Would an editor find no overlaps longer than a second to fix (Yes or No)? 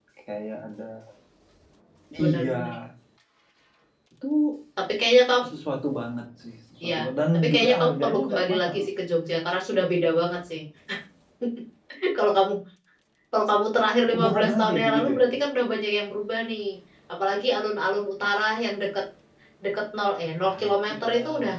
No